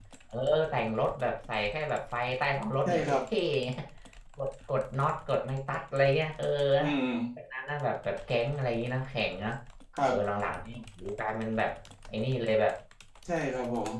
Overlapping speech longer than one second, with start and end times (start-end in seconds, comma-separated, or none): none